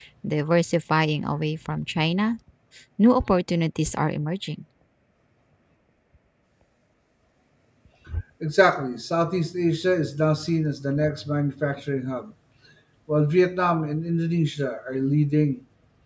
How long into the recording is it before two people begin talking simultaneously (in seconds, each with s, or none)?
none